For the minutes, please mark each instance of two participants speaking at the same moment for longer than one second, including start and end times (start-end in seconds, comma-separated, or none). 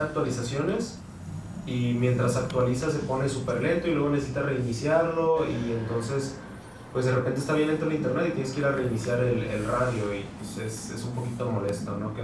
none